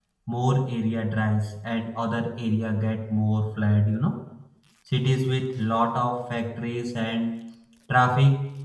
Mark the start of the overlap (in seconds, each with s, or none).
none